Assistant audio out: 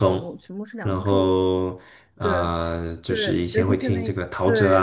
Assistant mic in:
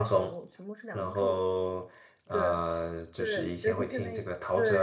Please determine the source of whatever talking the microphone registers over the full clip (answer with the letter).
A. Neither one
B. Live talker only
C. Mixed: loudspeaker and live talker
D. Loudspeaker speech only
D